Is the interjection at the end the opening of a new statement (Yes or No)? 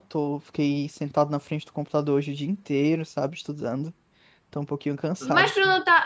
Yes